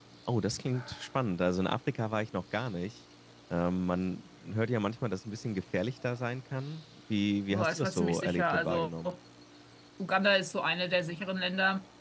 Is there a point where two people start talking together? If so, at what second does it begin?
7.5 s

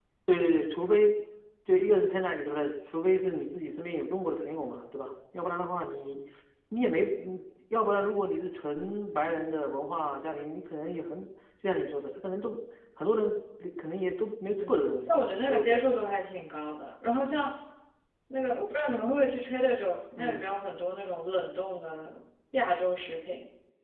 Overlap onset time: 14.6 s

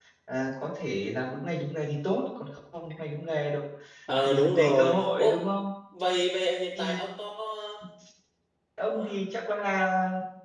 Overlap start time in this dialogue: 4.2 s

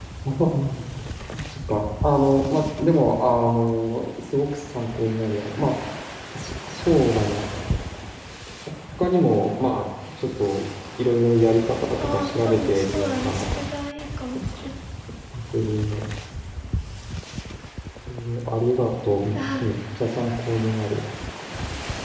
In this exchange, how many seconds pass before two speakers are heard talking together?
12.0 s

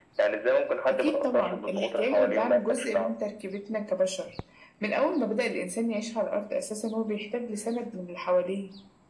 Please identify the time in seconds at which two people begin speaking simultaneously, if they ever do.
0.9 s

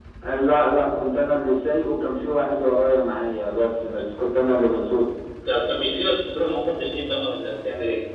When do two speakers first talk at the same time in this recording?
none

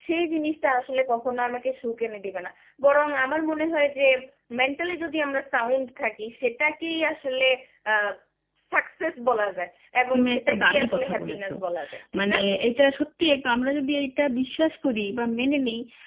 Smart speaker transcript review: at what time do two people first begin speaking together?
10.1 s

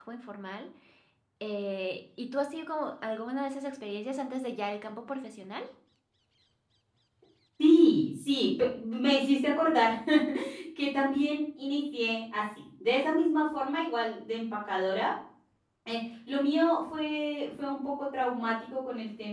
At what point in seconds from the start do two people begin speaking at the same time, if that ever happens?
none

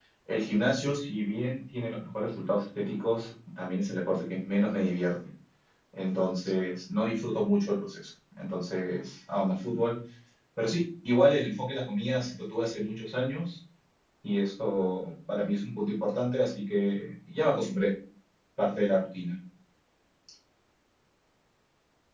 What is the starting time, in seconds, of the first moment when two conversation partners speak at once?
none

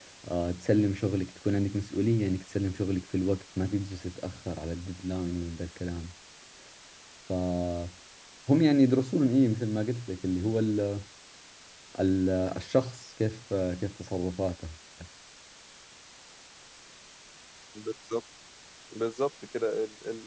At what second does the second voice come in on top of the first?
none

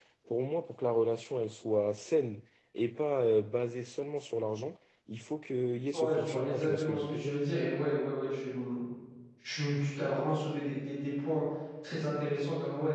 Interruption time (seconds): 5.9 s

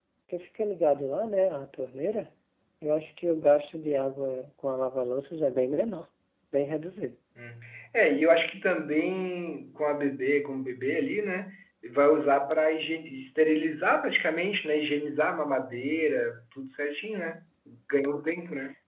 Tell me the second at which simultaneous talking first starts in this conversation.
none

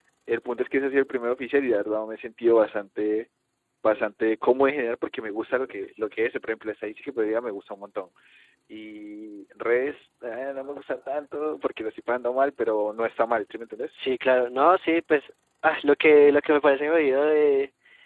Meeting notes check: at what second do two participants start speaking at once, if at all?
none

